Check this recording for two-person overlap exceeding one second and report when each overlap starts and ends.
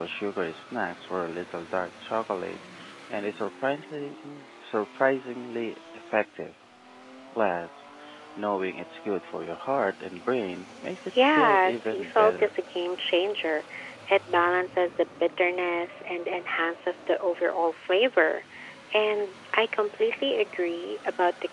11.3-12.5

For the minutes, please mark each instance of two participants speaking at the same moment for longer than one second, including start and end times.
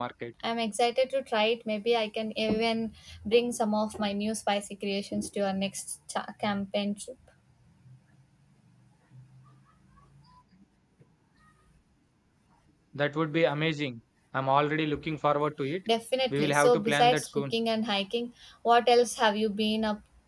16.3-17.5

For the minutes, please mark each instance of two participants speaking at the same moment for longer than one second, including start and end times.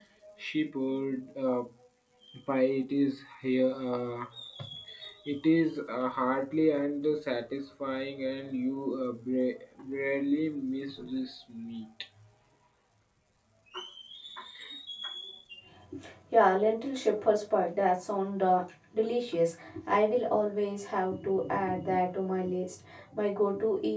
none

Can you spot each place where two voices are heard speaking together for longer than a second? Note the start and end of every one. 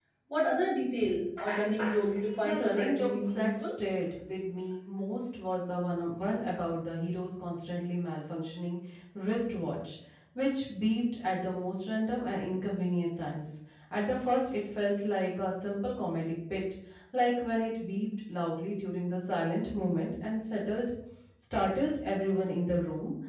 2.4-3.7

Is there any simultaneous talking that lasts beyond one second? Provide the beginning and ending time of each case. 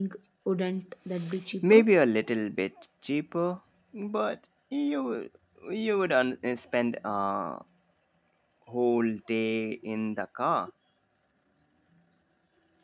none

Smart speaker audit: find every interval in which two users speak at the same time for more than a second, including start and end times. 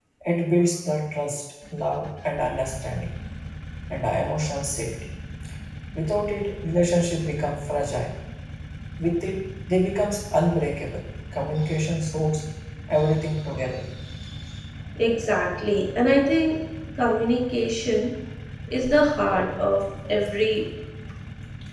none

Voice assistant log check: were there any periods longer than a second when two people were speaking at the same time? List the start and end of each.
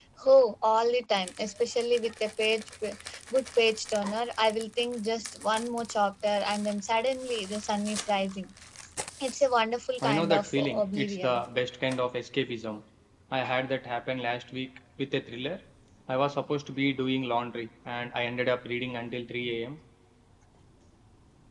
10.0-11.4

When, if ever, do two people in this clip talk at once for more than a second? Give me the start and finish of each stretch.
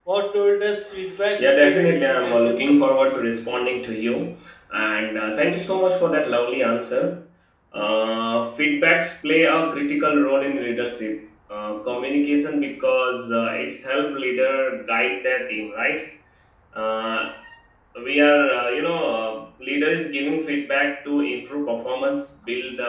1.4-3.1

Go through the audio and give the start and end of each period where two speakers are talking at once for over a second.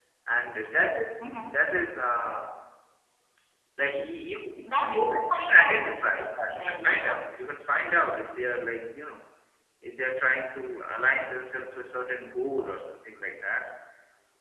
4.9-7.3

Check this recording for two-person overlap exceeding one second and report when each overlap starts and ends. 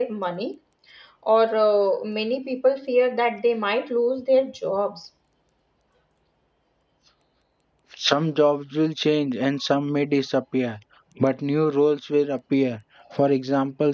none

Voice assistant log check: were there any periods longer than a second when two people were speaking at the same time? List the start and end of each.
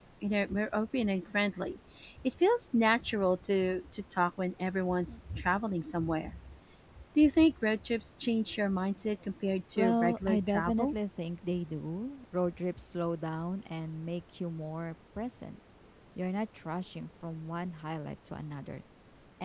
9.8-11.0

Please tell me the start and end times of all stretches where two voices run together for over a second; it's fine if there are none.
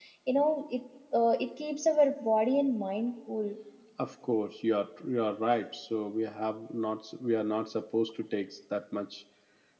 none

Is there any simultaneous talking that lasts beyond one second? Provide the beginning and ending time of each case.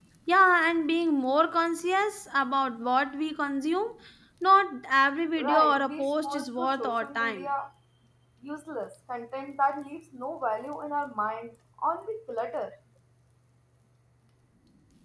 5.4-7.5

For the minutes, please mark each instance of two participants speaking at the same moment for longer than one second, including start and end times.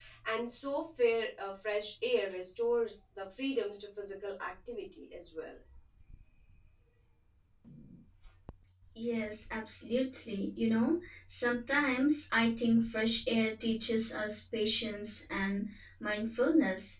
none

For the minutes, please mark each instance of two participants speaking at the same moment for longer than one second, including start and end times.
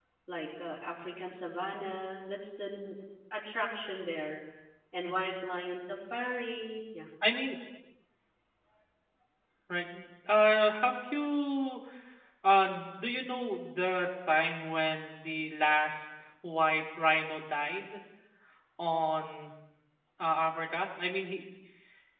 none

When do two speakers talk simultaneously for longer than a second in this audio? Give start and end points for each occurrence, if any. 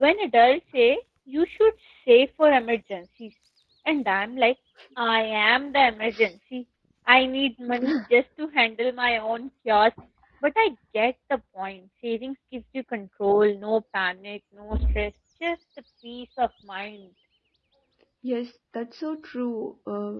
none

